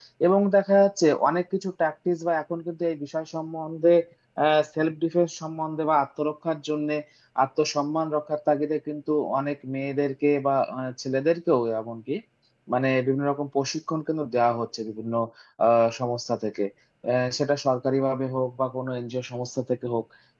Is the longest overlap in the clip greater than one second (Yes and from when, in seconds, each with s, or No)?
No